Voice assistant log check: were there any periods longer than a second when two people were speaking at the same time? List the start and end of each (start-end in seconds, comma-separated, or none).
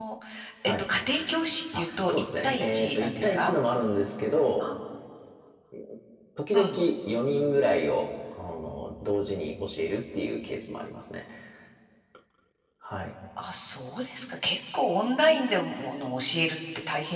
1.8-3.5